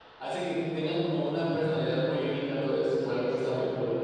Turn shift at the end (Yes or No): Yes